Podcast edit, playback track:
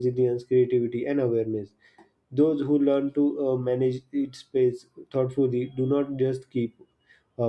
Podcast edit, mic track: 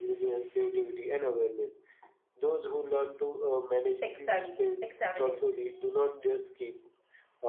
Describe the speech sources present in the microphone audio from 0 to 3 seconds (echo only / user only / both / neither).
echo only